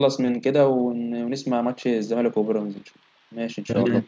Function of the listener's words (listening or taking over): taking over